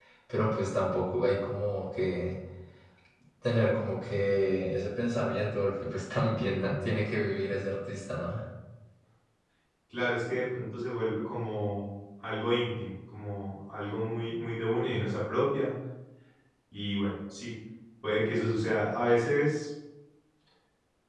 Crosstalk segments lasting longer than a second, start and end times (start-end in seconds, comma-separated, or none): none